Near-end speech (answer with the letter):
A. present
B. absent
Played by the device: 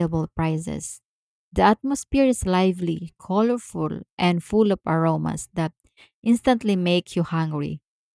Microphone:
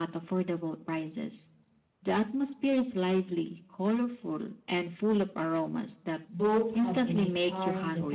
A